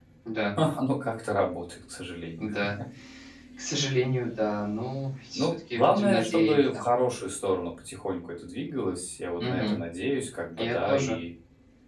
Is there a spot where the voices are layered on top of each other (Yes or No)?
Yes